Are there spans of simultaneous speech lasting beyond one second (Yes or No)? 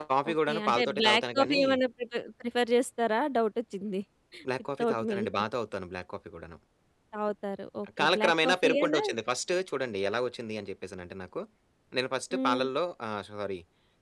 Yes